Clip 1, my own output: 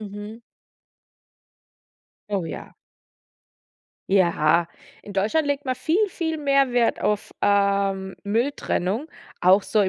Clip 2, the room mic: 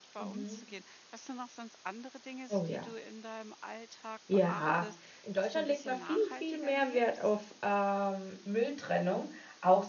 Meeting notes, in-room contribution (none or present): present